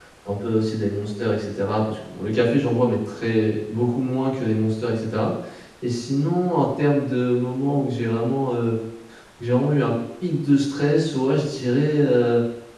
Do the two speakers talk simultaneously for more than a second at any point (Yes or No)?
No